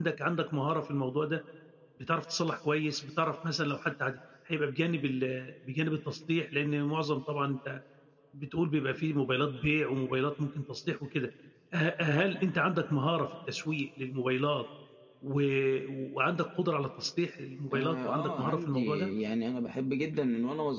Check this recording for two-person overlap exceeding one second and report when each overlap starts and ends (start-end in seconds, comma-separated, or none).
17.7-19.1